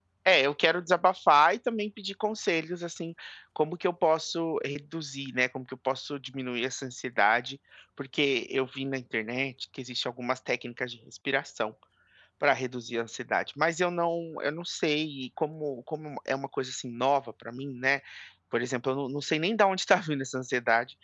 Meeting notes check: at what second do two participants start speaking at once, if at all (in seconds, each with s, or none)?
none